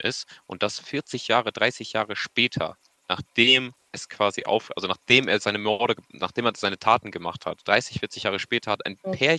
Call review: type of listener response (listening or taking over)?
listening